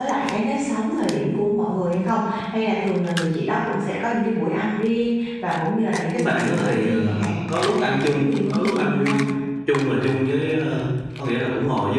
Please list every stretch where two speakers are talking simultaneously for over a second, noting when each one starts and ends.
6.2-9.2

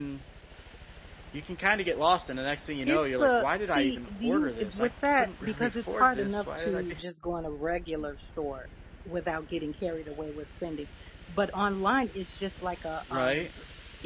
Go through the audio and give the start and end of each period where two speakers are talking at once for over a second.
2.9-7.0

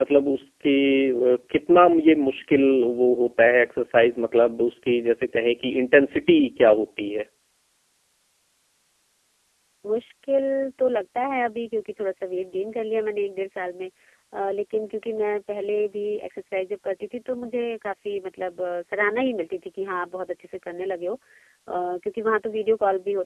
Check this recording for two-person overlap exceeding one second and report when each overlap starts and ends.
none

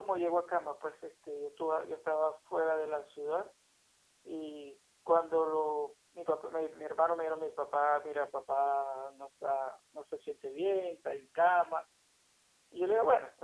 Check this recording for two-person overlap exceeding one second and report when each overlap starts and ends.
none

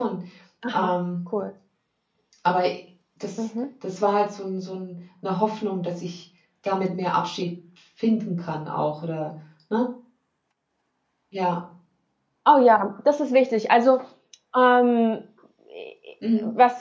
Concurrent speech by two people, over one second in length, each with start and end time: none

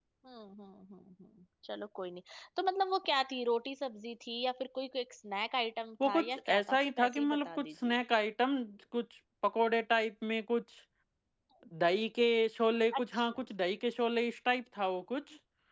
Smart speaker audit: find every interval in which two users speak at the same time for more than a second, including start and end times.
6.0-8.0

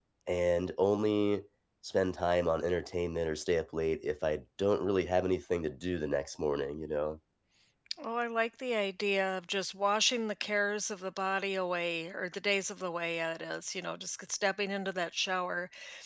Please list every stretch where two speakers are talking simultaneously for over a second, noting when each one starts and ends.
none

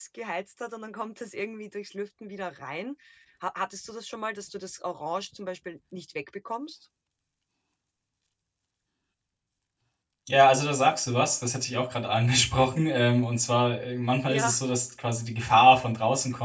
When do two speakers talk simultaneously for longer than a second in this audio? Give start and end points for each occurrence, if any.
none

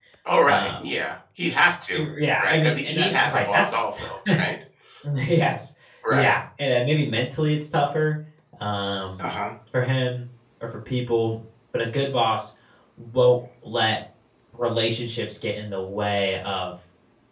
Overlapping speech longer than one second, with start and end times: 2.4-3.7

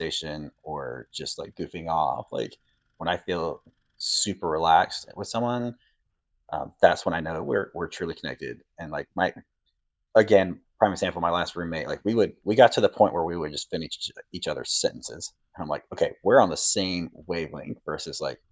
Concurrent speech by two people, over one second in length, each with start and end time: none

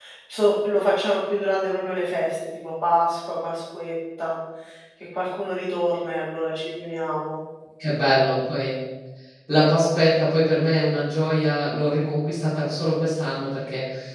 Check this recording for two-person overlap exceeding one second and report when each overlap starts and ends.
none

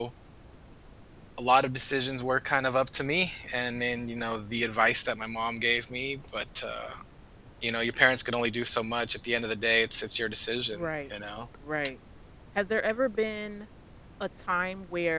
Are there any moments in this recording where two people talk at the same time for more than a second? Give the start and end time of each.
none

